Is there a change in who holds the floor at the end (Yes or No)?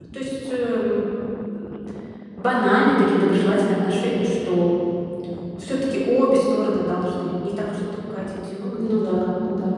Yes